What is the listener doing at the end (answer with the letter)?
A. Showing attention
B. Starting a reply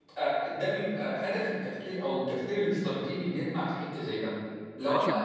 B